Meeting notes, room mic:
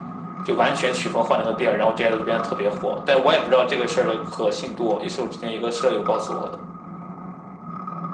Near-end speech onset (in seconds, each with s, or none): none